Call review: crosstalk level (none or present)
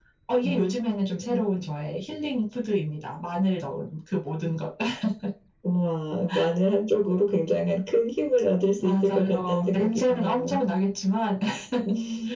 present